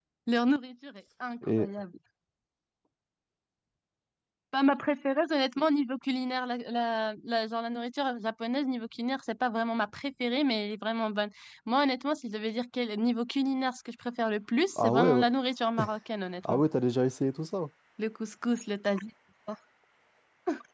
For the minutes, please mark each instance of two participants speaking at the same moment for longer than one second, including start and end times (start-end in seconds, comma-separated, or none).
none